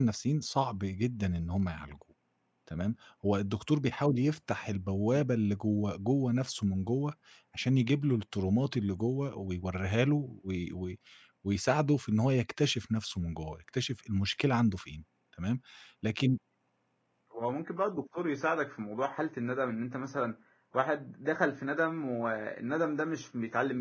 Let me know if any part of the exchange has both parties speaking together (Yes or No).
No